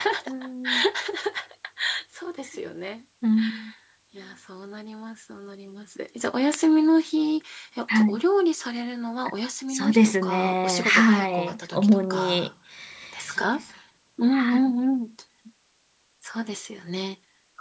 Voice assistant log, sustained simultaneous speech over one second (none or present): present